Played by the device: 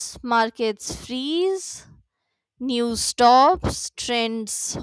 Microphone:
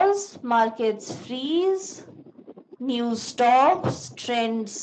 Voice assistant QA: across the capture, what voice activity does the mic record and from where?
echo only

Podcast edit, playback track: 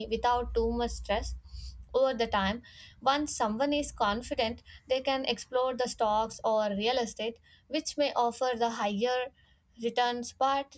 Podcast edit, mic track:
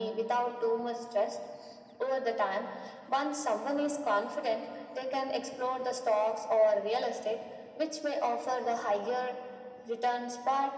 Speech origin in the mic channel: echo only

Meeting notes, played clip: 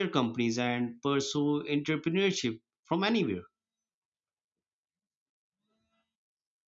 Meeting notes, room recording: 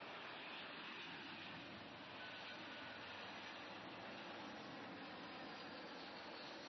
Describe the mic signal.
neither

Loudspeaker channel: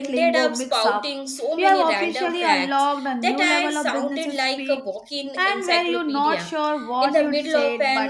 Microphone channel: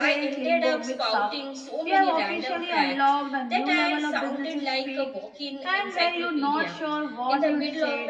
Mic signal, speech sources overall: echo only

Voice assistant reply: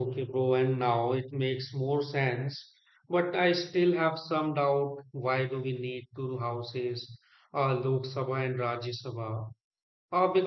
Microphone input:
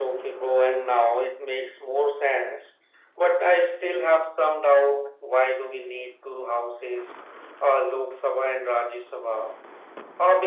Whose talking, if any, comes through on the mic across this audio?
echo only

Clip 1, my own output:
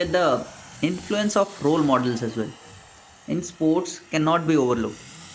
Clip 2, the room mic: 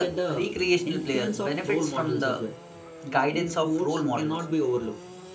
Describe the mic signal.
both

